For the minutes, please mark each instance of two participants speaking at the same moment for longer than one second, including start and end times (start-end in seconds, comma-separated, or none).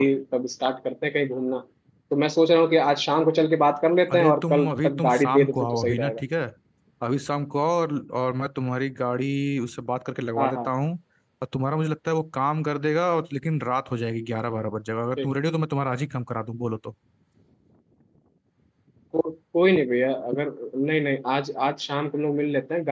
4.1-6.2